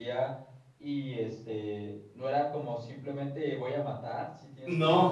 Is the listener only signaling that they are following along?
Yes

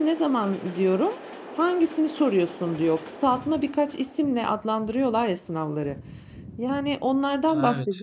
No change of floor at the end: Yes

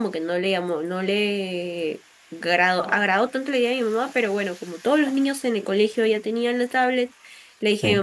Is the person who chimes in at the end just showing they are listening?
Yes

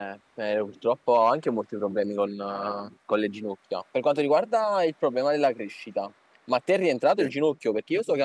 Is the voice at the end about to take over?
No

